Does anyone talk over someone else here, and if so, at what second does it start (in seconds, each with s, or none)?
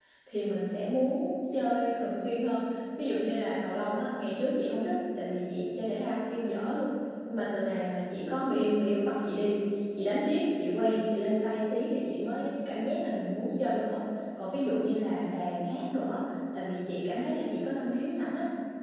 none